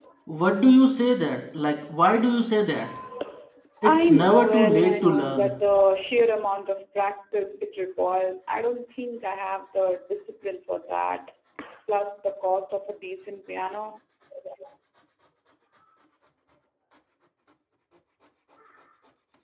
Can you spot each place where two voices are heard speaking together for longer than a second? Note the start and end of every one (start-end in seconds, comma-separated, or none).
3.8-5.5